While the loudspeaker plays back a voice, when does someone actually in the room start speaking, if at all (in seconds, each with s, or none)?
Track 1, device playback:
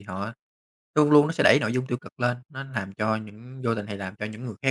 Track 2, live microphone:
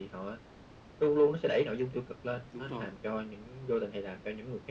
2.5 s